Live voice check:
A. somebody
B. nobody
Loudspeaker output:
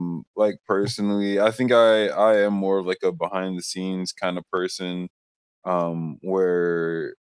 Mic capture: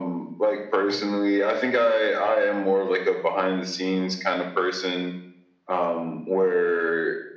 B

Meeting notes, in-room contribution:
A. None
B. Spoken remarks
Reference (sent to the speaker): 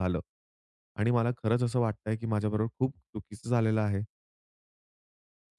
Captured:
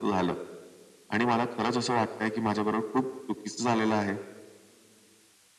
A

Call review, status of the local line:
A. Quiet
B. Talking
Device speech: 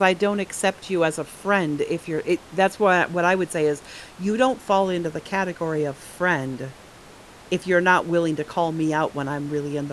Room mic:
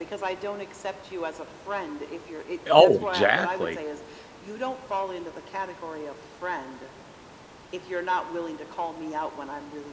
B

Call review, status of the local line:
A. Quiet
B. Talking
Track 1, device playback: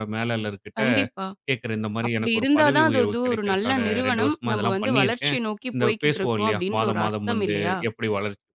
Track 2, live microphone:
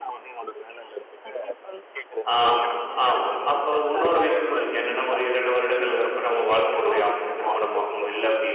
B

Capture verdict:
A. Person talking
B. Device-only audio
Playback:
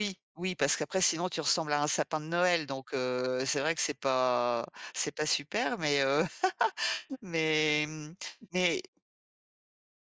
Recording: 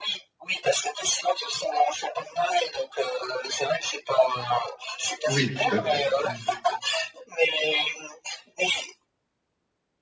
A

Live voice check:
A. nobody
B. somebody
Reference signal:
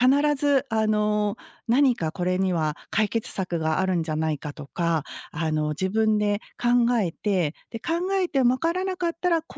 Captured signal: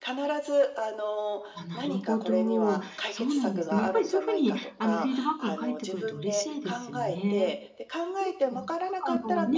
B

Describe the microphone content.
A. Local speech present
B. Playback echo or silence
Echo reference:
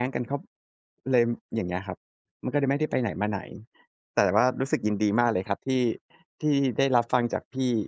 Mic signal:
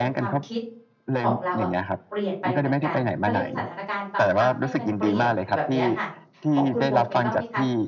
A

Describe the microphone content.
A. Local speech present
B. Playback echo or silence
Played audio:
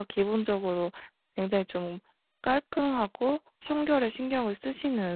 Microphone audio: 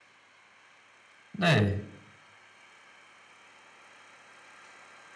A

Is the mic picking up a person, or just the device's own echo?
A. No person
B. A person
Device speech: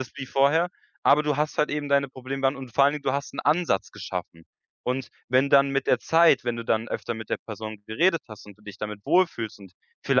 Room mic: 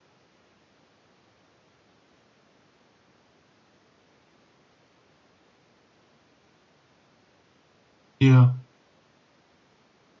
B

